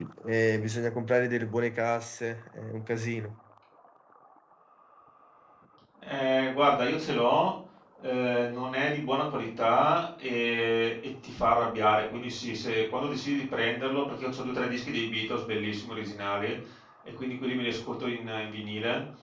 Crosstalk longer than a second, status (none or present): none